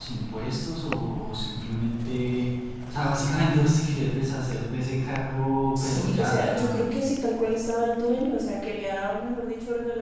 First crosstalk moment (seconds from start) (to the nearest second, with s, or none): 6 s